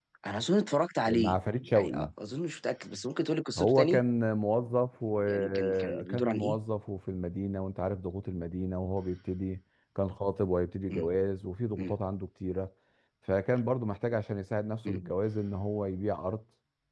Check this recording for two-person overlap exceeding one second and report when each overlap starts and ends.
5.3-6.6

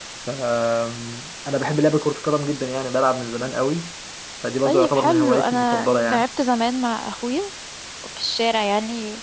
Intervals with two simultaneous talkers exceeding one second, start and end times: 4.6-6.3

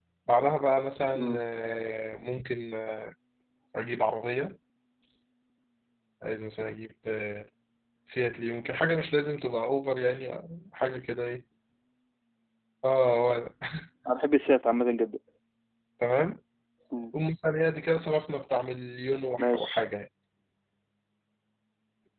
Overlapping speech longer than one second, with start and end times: none

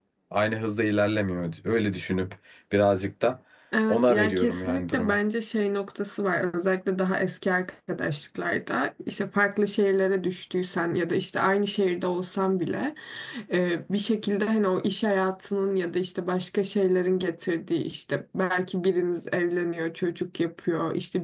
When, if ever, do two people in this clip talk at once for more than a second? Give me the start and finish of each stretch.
3.9-5.2

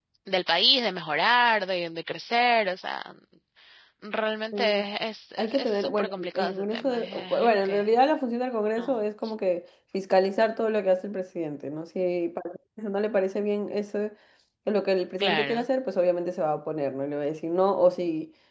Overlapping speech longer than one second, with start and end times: 5.4-7.9

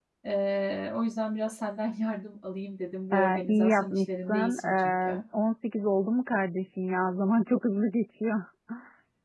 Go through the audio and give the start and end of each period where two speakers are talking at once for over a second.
3.1-5.2

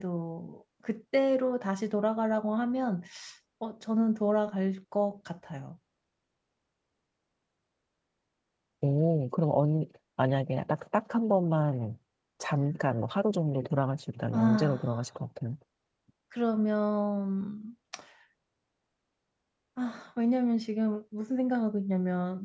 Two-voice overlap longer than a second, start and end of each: none

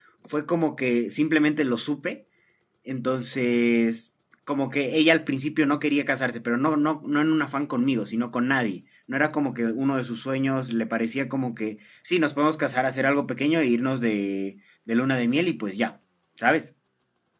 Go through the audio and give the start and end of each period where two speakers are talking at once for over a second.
none

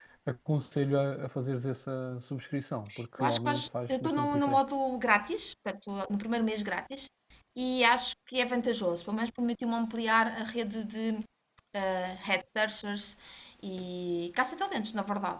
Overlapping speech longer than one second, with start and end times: 3.2-4.6

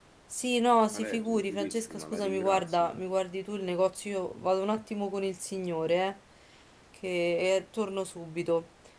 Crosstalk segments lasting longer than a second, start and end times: 0.9-2.9

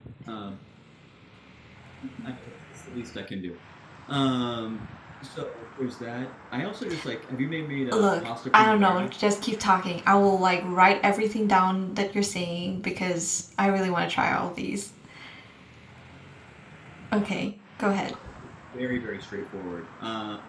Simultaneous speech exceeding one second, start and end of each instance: 7.9-9.1

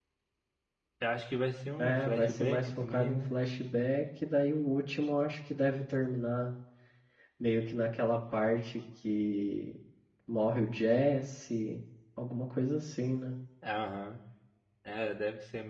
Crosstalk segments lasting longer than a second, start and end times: 1.8-3.3

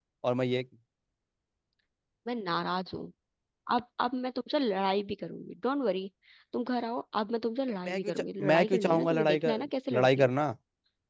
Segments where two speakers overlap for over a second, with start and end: 7.8-9.5

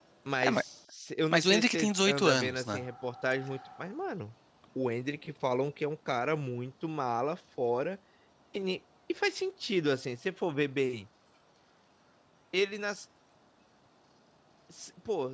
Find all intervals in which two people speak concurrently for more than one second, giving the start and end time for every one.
1.3-2.8

